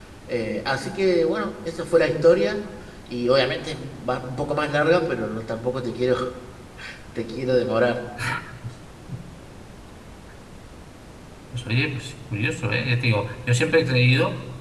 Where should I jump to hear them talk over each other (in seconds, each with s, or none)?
none